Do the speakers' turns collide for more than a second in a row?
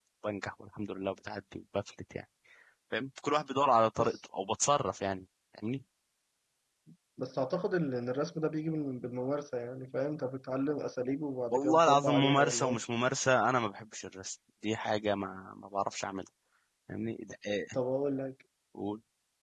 Yes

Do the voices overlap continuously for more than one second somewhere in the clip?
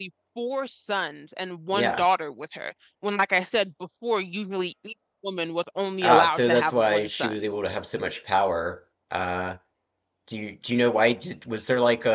Yes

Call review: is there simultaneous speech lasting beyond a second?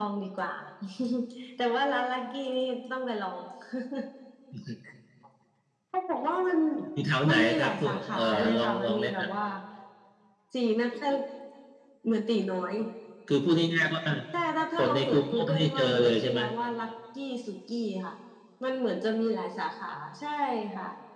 Yes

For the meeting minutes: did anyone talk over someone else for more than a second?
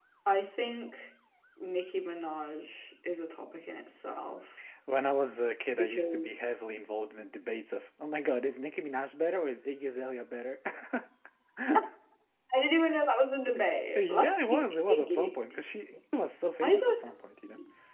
Yes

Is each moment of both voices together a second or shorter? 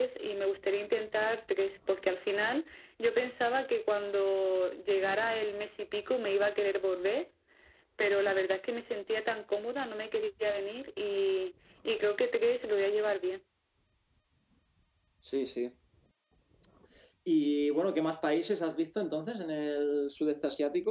Yes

